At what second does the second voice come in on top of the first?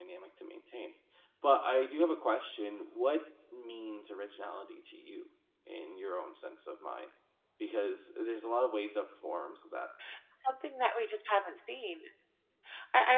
none

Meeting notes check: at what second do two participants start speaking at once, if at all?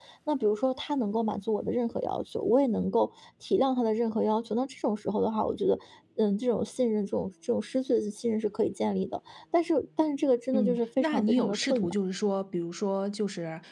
11 s

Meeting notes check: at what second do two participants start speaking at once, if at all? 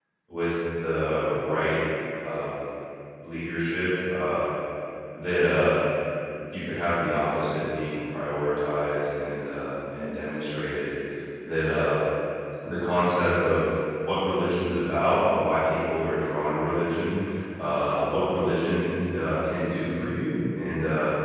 none

